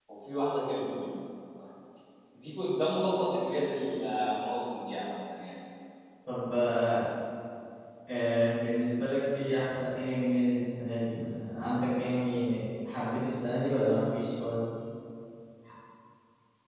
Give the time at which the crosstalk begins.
none

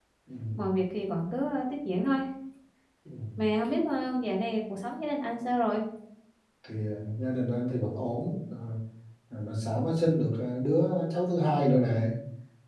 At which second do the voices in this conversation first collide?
none

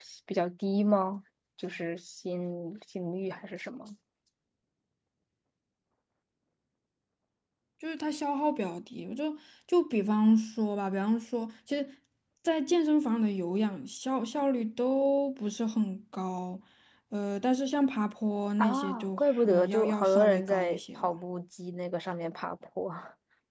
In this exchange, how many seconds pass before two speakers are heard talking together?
18.6 s

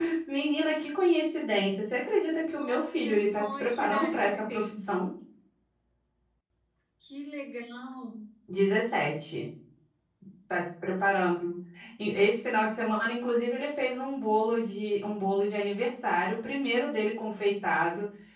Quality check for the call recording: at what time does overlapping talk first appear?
2.6 s

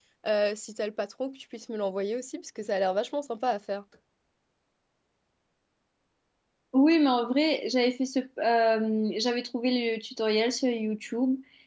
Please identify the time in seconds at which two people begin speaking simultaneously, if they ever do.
none

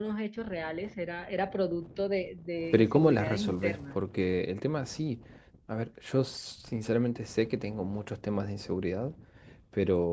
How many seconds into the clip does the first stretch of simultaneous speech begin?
2.7 s

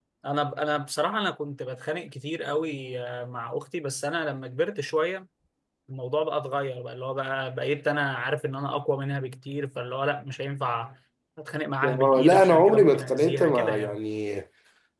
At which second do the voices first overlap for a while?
11.8 s

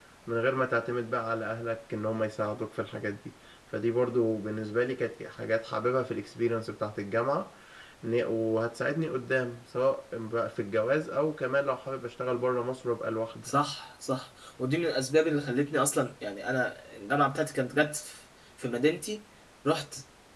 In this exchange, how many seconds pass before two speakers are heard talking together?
none

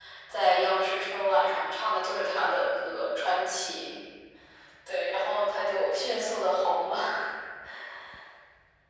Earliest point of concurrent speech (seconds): none

